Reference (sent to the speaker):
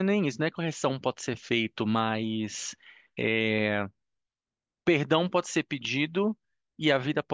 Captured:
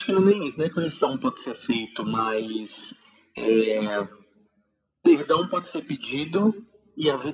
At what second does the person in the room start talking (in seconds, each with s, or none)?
none